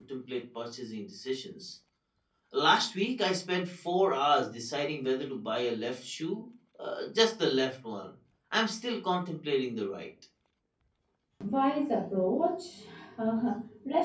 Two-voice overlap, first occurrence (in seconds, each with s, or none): none